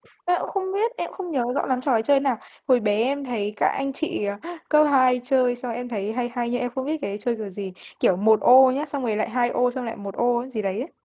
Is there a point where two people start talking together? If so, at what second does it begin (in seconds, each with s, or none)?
none